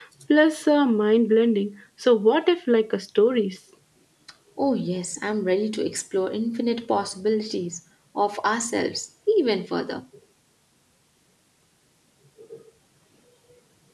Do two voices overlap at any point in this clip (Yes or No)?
No